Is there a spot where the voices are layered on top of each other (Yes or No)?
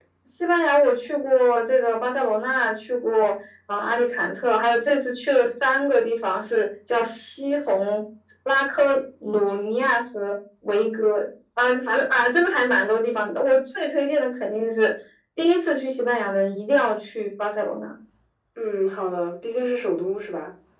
No